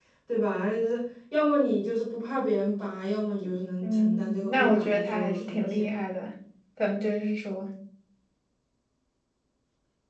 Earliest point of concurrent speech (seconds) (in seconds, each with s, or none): 3.8 s